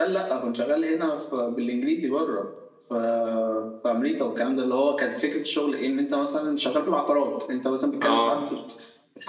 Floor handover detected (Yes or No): No